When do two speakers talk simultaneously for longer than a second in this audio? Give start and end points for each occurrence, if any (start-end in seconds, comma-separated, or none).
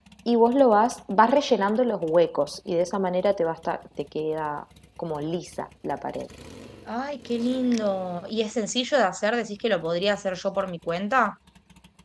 none